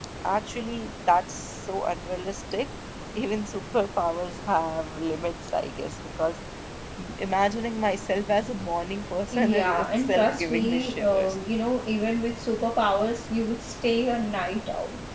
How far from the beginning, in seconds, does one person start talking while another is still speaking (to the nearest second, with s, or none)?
9 s